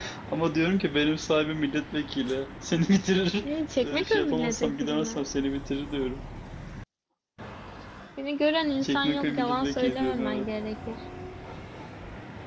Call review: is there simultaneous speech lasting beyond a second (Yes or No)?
Yes